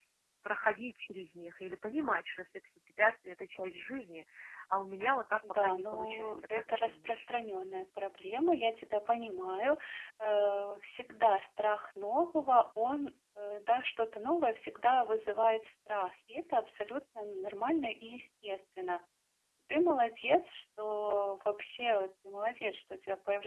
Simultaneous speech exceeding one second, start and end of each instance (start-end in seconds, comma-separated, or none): 5.5-7.2